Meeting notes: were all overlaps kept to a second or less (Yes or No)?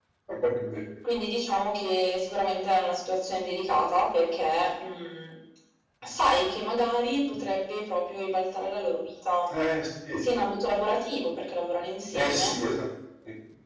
Yes